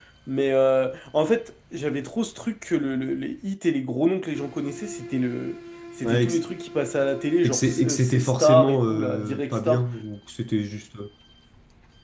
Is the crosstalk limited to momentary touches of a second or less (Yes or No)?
No